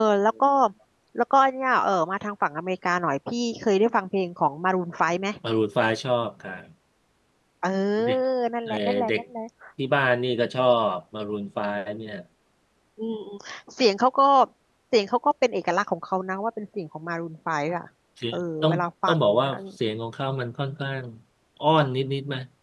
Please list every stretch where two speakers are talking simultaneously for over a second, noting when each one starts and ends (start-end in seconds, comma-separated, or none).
18.3-19.5